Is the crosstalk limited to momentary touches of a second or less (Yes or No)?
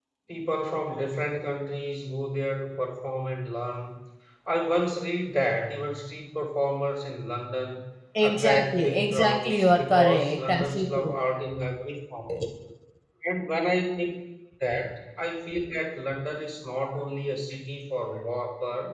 No